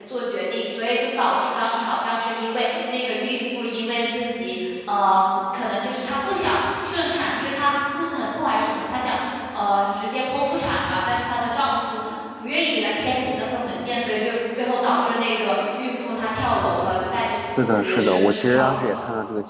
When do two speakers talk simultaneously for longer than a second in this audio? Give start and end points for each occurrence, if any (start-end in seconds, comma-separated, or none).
17.6-19.0